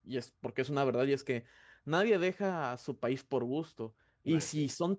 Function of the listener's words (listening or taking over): listening